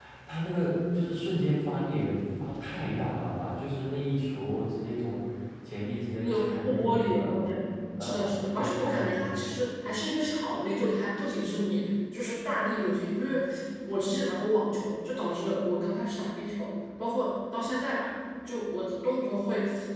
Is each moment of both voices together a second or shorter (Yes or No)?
No